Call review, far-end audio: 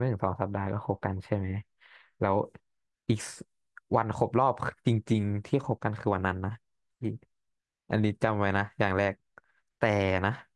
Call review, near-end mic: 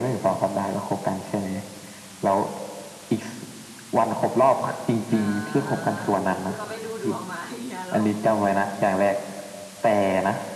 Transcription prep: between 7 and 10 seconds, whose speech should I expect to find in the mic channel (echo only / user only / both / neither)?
both